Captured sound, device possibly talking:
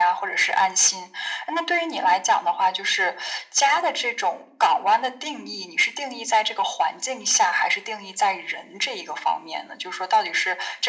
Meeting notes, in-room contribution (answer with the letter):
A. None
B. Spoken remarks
A